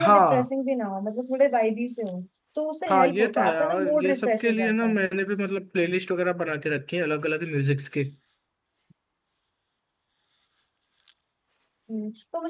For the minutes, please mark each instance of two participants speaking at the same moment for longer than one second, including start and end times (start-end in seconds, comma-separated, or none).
2.9-5.0